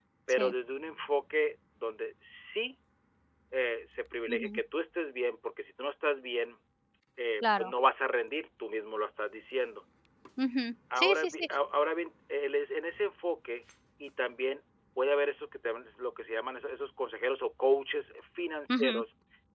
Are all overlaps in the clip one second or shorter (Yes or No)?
Yes